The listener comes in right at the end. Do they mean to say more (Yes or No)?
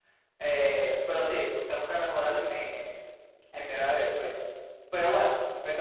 No